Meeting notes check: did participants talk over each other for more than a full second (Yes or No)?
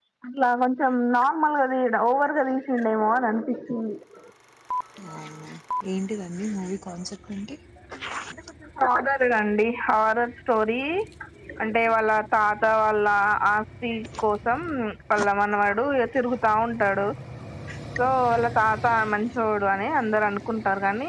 No